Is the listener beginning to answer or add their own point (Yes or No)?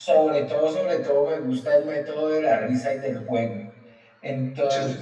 No